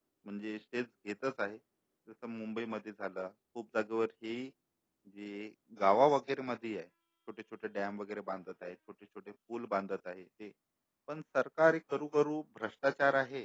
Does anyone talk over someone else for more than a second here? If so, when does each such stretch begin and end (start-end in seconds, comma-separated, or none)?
none